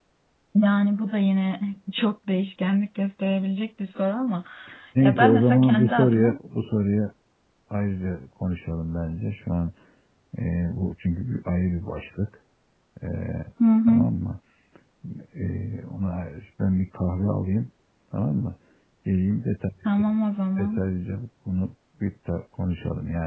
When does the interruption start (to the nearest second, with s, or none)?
5 s